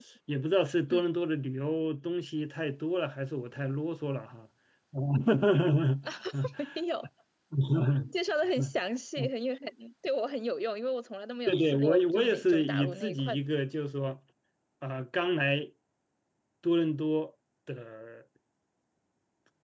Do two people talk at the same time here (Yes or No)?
Yes